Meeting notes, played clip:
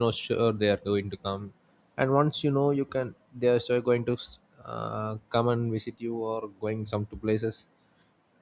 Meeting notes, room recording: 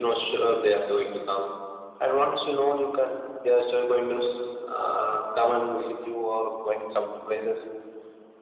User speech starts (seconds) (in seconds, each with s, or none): none